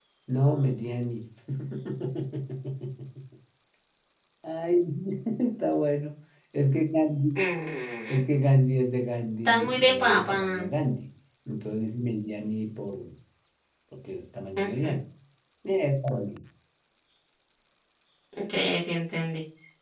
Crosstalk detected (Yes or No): Yes